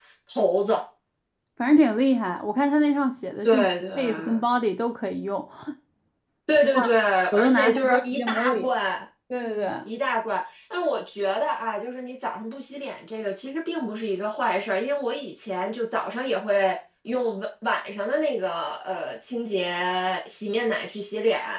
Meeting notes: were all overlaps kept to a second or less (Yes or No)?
No